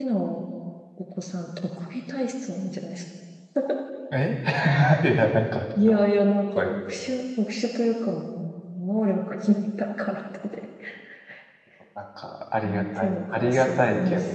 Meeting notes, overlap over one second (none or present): present